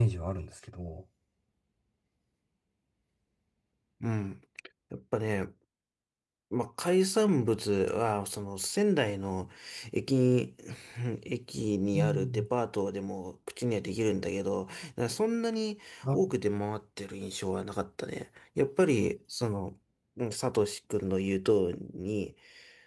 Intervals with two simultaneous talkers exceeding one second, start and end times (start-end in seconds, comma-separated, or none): none